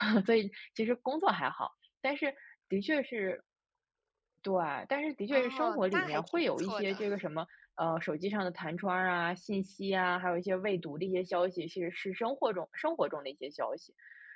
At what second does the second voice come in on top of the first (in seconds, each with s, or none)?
5.3 s